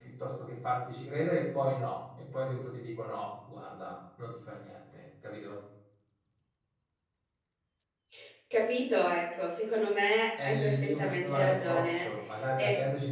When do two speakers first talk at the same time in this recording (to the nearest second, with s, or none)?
10 s